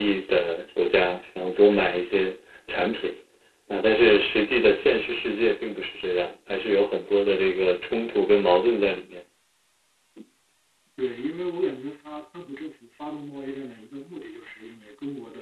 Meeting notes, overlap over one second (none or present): none